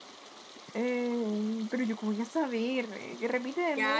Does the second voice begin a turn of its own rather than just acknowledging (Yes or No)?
Yes